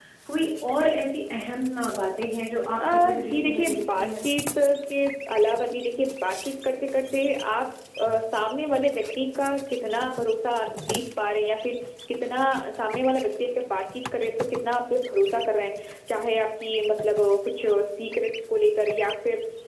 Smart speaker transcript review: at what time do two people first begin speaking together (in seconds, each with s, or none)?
2.8 s